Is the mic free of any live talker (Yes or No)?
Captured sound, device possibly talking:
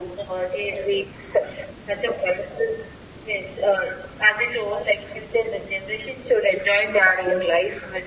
Yes